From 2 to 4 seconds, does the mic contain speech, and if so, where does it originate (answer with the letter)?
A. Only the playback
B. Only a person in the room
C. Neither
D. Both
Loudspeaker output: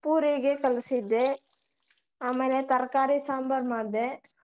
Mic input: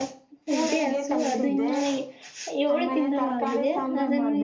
D